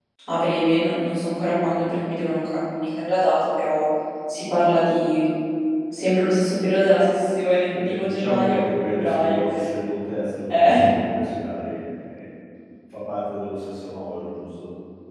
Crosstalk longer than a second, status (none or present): present